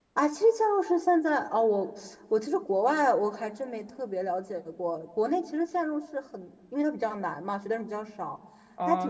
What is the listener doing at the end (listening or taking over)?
taking over